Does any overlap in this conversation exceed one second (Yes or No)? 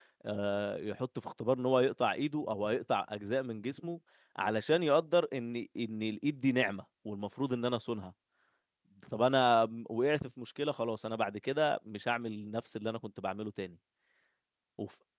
No